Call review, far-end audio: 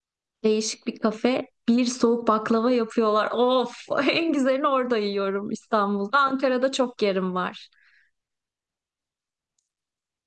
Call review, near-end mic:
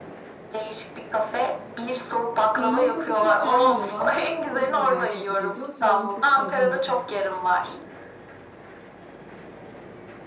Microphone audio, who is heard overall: both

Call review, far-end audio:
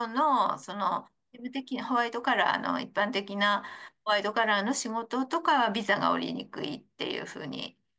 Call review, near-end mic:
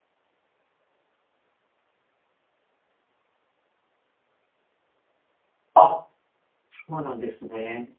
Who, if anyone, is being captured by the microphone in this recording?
user only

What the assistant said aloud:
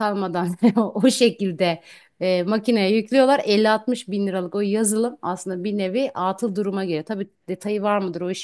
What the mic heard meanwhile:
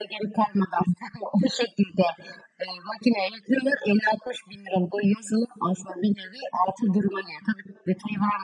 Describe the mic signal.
echo only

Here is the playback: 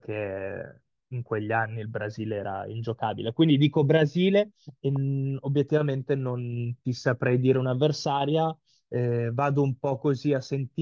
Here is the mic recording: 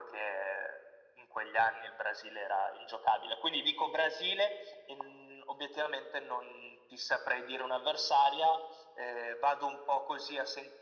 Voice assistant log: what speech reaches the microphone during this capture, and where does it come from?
echo only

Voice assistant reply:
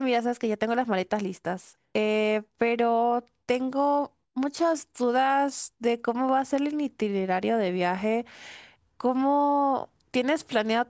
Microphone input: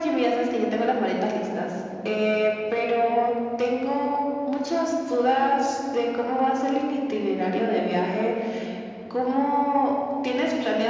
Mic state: echo only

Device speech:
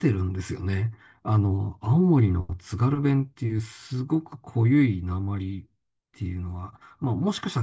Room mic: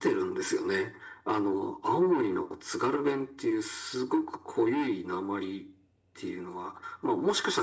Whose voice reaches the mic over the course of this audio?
echo only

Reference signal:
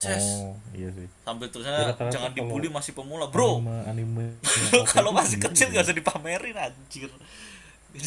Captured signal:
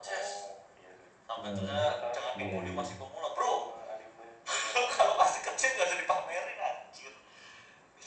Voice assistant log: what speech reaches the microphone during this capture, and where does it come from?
both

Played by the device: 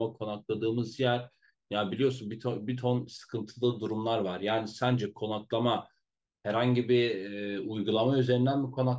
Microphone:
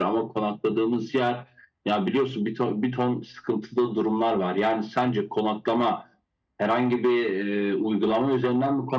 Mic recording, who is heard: echo only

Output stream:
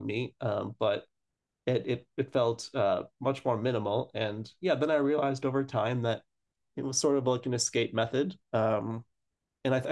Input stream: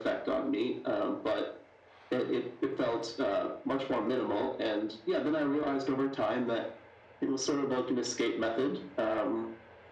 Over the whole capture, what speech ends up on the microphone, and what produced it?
echo only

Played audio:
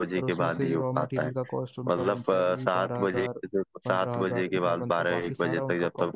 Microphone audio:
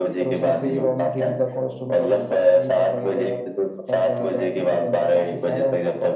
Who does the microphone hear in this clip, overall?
echo only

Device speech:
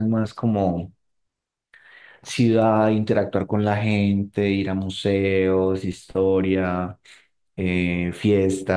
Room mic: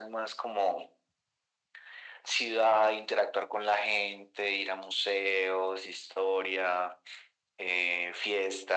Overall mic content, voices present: echo only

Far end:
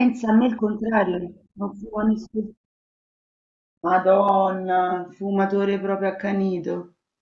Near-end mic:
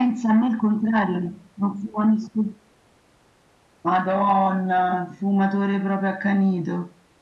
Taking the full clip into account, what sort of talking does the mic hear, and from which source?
echo only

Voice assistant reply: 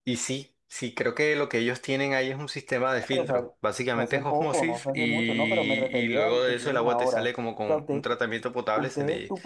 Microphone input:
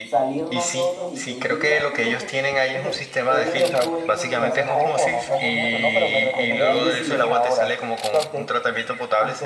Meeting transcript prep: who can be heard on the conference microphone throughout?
both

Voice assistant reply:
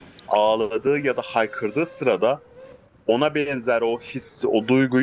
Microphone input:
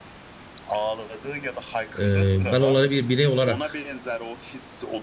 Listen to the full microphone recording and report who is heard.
both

